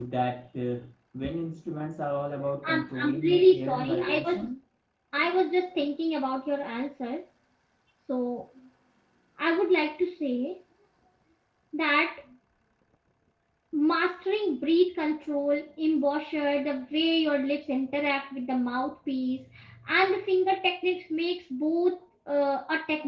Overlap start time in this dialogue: 3 s

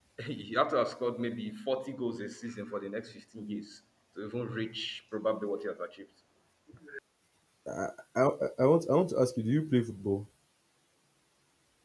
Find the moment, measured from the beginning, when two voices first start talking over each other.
none

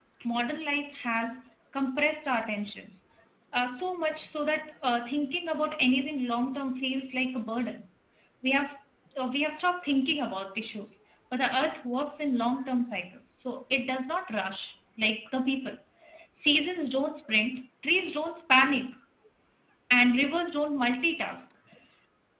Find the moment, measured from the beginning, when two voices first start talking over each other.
none

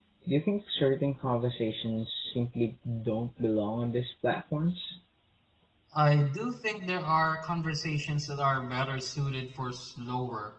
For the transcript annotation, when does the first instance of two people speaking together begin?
none

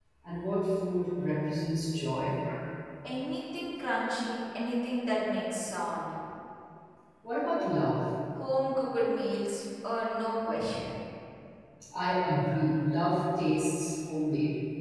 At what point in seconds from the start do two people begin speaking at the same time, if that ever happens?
none

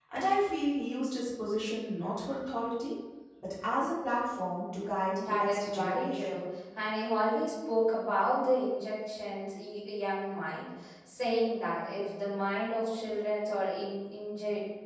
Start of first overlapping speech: 5 s

